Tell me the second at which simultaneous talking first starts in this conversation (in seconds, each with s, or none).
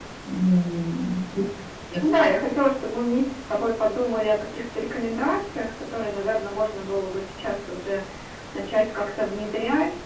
none